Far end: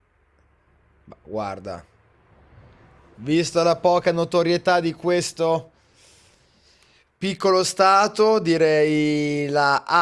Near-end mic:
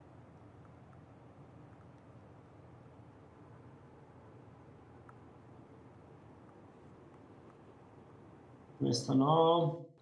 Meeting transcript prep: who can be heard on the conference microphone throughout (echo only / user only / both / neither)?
user only